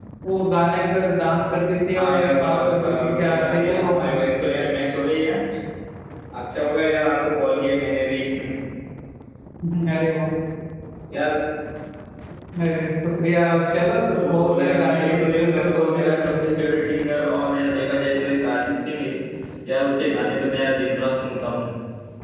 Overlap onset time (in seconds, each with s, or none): 1.9 s